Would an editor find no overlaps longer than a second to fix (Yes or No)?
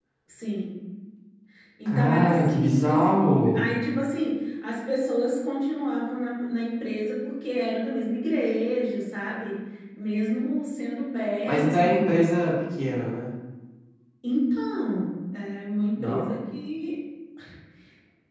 No